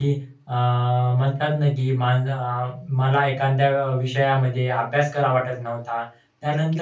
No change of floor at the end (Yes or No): No